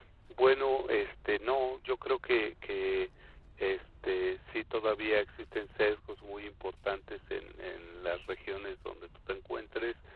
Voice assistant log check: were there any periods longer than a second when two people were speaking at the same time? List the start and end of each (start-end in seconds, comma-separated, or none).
none